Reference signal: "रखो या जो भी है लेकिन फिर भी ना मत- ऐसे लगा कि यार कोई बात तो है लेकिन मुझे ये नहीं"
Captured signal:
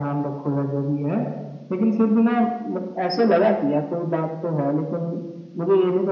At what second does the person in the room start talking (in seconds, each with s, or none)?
none